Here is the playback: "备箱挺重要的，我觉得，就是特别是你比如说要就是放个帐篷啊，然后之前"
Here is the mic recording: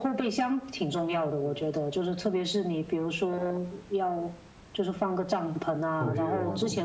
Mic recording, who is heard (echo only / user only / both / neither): both